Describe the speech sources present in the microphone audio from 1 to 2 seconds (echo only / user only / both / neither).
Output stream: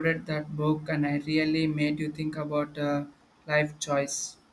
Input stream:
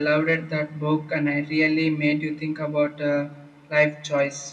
echo only